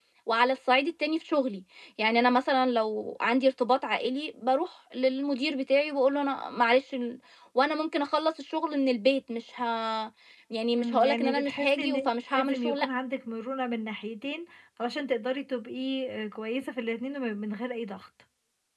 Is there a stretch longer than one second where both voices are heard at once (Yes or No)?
Yes